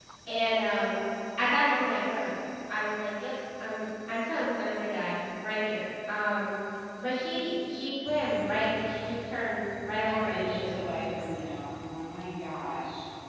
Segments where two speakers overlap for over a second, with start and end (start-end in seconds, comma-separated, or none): none